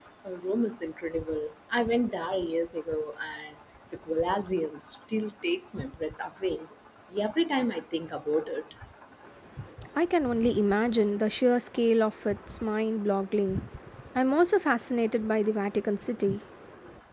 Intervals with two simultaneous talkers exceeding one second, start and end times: none

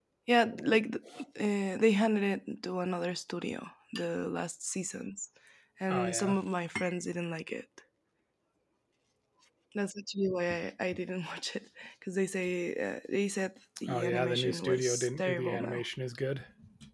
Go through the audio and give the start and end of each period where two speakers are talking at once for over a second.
13.9-15.8

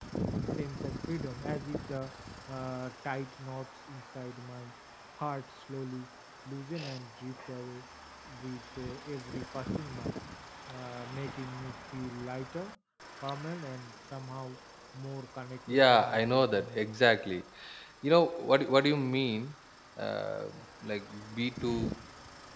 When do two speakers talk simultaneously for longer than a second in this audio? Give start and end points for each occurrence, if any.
15.7-16.9

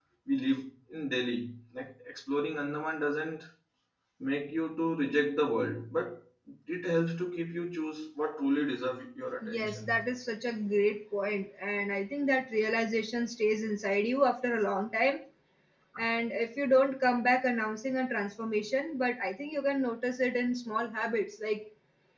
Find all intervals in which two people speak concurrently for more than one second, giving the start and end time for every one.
none

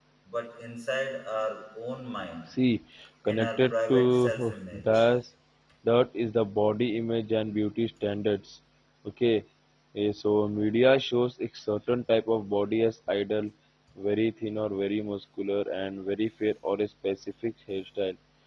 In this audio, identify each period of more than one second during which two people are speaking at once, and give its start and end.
3.2-5.1

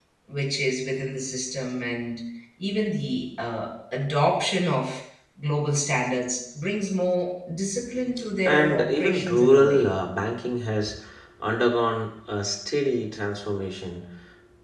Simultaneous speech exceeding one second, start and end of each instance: 8.4-9.8

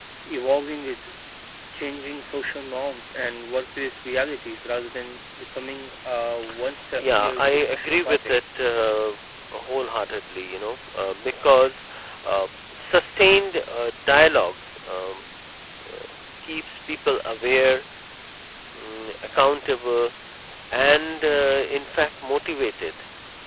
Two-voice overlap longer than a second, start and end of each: 7.0-8.3

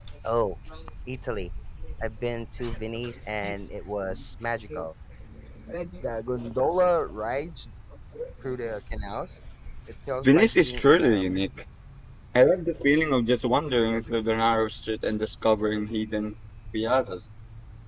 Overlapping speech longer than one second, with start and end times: 10.2-11.5

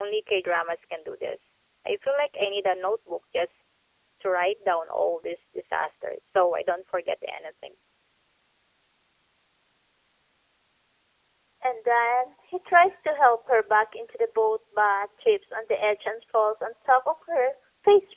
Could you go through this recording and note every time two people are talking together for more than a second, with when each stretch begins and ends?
none

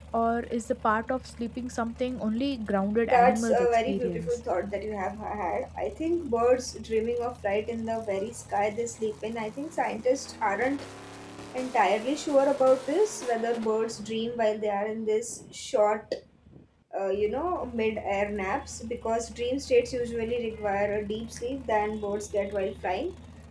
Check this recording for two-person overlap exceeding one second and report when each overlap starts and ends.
3.1-4.4

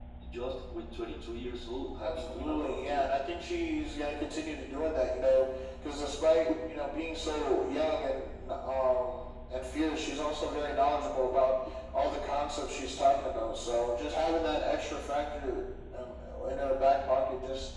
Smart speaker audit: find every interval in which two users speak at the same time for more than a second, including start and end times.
2.0-3.2

